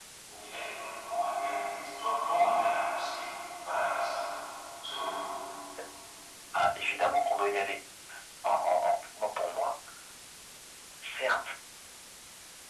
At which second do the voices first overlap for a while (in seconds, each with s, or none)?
none